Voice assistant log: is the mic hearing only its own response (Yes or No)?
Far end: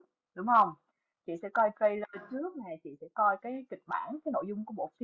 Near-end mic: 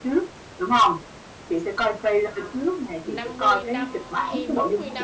No